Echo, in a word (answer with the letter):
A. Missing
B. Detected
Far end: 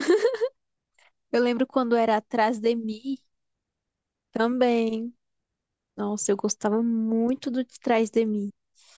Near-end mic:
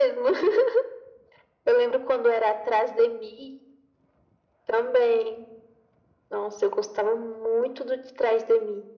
B